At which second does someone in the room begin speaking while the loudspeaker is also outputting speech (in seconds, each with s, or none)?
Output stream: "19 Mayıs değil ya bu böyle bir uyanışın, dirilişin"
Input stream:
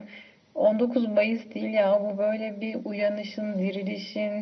none